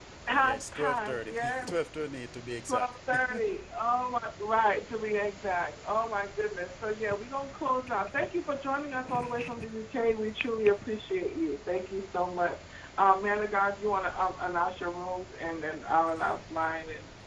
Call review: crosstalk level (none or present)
present